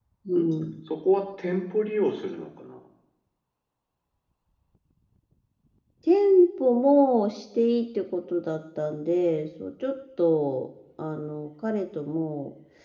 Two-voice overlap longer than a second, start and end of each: none

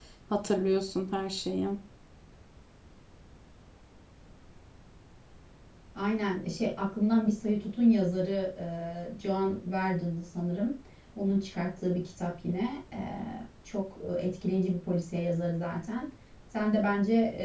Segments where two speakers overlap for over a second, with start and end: none

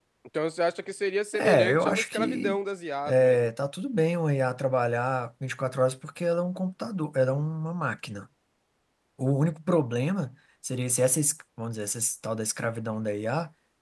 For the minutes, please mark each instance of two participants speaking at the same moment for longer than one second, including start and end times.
1.3-2.6

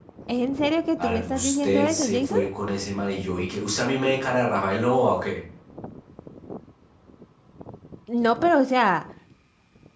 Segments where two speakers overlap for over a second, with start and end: 1.0-2.4

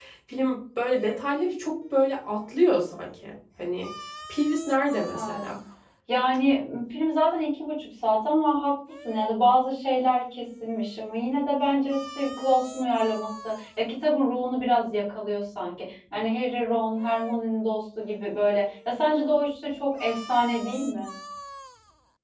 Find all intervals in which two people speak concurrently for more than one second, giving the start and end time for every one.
none

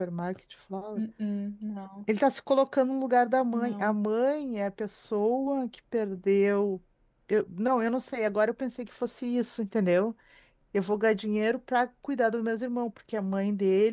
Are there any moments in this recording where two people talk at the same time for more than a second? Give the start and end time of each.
none

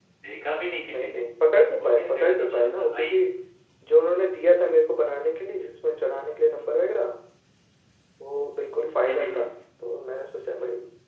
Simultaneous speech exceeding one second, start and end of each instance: 1.8-3.2

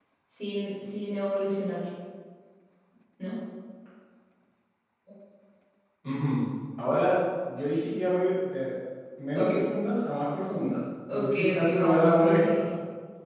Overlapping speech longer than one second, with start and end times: 11.1-12.7

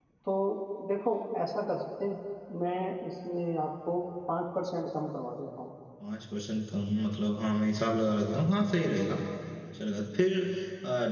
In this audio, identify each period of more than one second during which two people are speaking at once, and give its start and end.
none

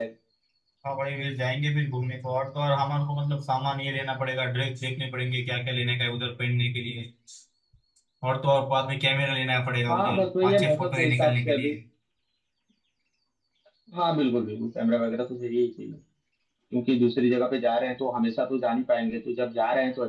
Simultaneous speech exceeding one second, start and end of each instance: 9.9-11.7

